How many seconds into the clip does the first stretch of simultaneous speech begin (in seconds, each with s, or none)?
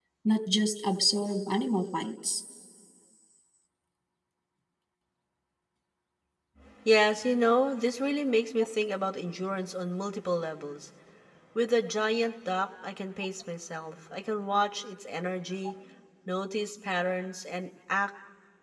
none